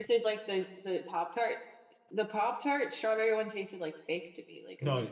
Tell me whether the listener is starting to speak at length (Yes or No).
Yes